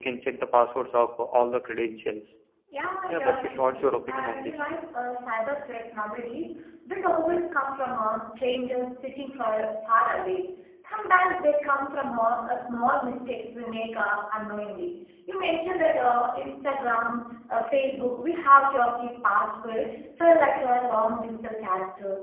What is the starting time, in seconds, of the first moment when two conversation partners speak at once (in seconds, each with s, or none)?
3.1 s